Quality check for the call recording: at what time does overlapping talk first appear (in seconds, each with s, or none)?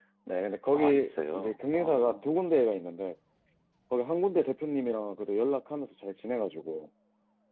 0.7 s